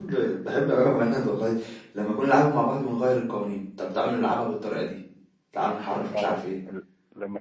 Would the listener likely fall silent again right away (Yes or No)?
No